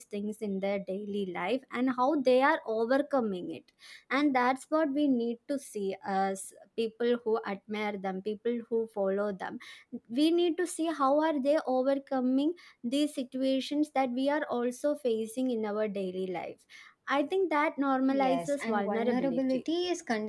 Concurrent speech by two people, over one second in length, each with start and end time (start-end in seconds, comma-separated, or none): 18.1-19.6